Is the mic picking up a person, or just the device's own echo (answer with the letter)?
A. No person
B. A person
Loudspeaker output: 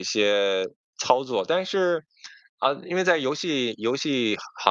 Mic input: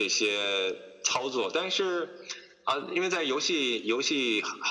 A